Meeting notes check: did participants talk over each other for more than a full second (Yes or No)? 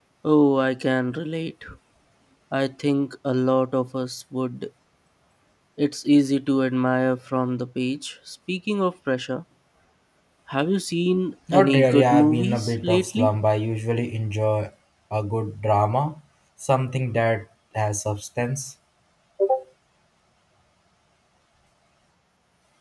Yes